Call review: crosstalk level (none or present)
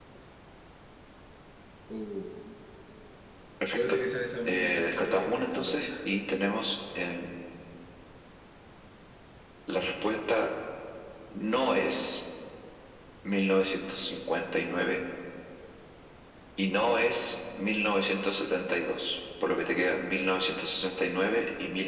present